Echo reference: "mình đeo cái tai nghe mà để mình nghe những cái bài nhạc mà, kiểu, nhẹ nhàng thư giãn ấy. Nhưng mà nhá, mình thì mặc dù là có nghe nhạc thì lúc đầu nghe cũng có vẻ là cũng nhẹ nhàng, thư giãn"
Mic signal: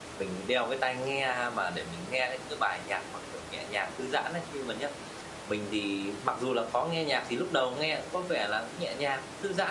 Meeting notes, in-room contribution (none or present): none